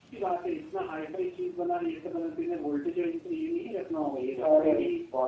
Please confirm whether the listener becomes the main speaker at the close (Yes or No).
No